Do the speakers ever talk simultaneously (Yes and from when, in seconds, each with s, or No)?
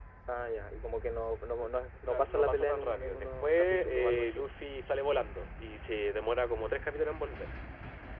Yes, from 2.1 s